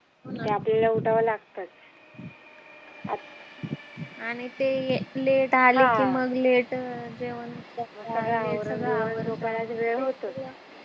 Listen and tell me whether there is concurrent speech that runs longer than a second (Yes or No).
Yes